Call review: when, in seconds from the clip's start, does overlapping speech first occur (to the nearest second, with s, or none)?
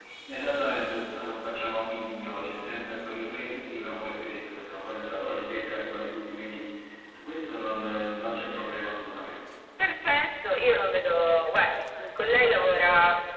none